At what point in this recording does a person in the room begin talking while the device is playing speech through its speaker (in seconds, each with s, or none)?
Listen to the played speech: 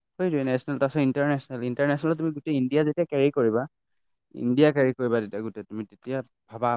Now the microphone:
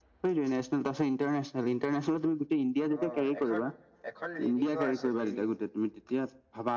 3.0 s